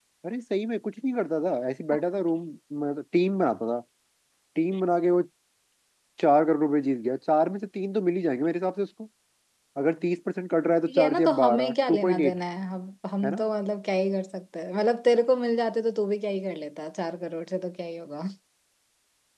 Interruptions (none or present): present